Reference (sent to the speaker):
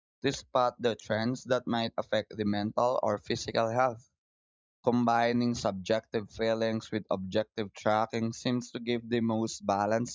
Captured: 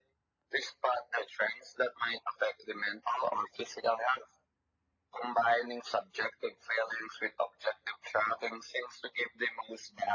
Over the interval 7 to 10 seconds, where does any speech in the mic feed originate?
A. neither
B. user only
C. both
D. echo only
D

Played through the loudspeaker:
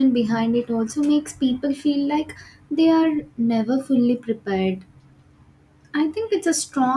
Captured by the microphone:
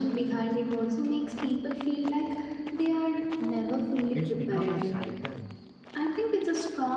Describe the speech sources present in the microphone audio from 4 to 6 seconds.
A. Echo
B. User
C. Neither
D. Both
D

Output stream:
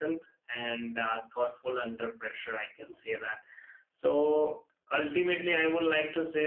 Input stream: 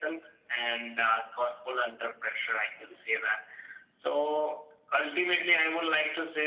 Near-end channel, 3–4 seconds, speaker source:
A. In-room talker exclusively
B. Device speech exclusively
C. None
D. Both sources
B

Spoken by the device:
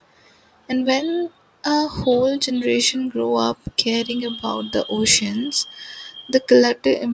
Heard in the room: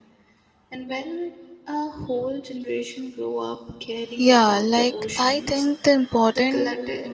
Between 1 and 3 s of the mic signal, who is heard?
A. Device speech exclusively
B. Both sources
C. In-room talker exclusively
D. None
A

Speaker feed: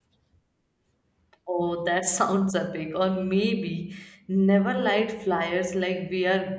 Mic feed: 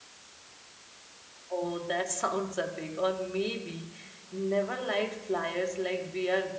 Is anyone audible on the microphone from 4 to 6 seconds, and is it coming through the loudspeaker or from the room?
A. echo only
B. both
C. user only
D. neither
A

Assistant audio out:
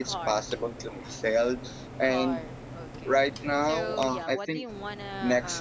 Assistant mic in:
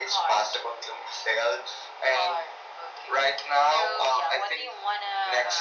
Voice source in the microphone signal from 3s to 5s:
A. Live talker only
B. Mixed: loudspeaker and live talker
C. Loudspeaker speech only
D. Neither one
C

